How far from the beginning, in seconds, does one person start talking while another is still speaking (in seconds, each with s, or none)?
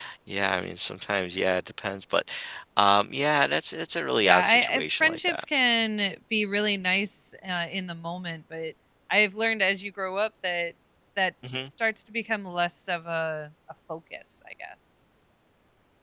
4.2 s